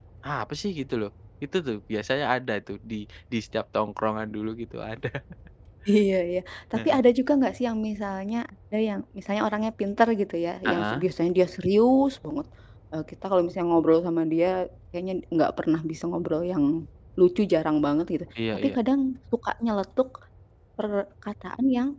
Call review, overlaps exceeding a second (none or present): none